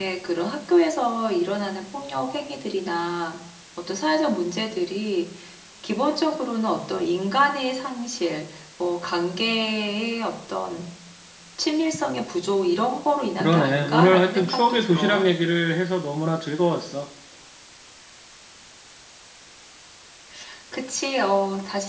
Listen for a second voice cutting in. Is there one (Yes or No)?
Yes